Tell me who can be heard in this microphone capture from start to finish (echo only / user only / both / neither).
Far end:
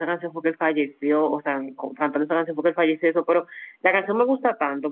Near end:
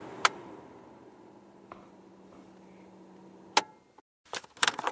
neither